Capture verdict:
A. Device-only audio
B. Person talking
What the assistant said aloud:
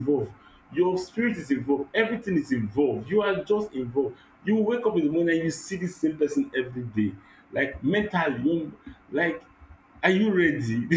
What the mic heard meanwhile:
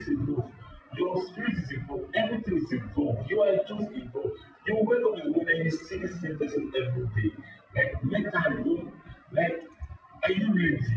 A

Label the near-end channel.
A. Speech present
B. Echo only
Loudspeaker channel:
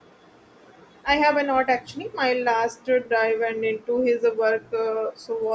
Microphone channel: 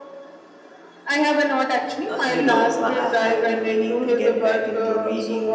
A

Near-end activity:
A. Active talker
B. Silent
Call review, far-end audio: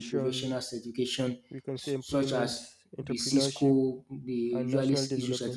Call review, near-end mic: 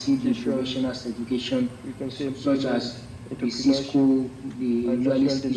B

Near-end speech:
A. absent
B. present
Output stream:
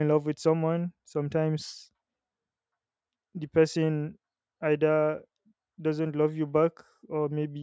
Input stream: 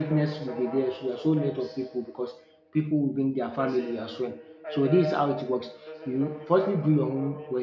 B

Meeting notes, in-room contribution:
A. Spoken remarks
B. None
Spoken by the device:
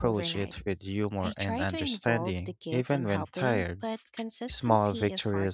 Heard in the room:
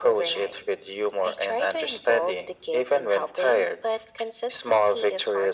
B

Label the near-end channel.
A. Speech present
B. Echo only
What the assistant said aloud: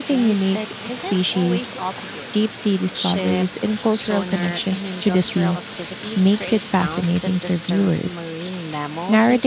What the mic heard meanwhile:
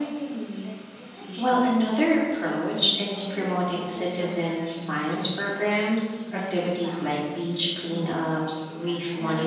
A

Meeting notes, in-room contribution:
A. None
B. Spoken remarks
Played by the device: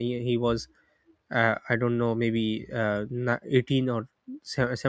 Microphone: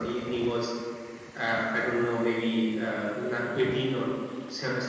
A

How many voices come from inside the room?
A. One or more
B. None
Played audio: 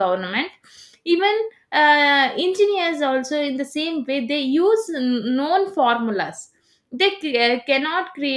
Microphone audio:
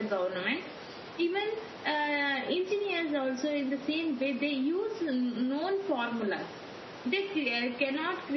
B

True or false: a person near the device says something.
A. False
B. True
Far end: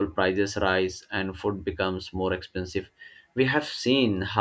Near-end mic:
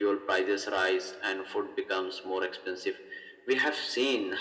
A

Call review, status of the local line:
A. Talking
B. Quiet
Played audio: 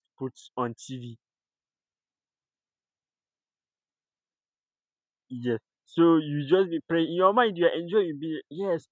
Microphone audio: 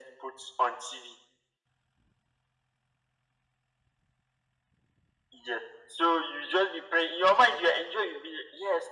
B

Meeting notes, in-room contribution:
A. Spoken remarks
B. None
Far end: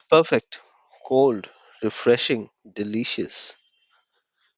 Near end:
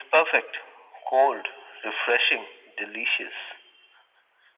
B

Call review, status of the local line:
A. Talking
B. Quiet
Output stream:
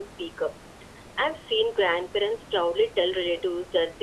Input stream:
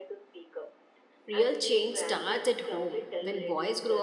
A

